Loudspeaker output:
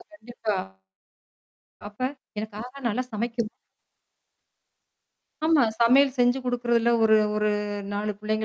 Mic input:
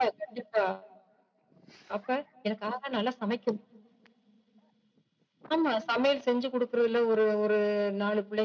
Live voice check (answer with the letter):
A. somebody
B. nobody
B